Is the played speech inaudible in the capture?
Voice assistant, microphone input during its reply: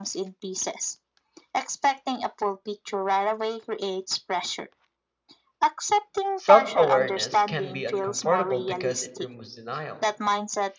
No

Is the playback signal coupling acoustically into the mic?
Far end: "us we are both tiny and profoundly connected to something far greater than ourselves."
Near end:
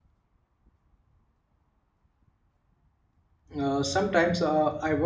No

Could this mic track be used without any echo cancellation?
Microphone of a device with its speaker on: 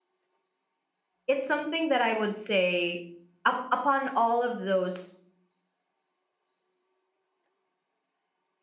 Yes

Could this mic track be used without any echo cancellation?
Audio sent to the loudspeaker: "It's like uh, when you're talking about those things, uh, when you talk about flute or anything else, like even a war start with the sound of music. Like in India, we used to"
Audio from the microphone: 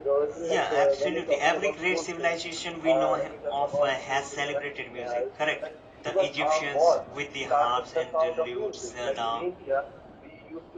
No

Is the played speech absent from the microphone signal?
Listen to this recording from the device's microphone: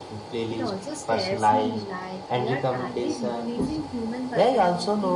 No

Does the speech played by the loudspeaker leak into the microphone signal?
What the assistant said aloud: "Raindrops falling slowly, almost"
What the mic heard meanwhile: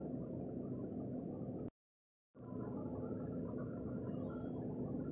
No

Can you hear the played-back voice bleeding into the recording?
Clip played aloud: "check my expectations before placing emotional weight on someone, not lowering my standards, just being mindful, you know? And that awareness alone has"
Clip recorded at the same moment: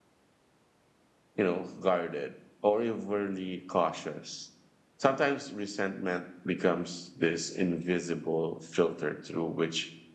No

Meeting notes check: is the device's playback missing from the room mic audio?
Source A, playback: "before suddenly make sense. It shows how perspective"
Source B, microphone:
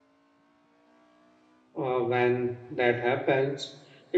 Yes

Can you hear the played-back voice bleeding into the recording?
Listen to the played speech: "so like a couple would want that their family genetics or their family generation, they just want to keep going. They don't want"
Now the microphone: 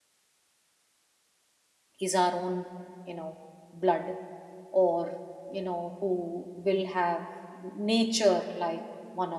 No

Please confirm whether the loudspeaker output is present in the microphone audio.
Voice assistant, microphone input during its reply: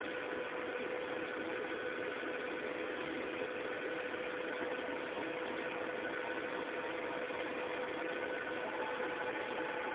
No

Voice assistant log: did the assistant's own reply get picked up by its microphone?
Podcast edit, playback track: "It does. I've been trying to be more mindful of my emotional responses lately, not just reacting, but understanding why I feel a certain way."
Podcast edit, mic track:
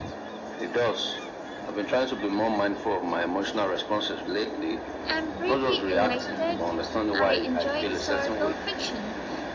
Yes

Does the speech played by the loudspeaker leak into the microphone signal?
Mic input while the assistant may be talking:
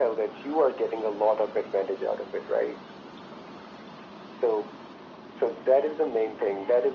Yes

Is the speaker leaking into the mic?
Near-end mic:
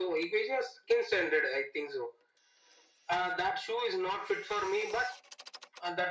Yes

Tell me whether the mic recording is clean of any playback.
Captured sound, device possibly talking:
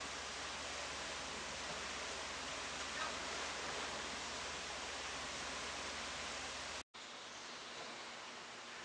Yes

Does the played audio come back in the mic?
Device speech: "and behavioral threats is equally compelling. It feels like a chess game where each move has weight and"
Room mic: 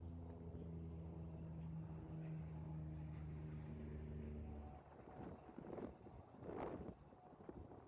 No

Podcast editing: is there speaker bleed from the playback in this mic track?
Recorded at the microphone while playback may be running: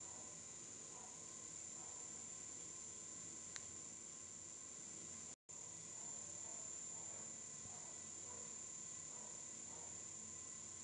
No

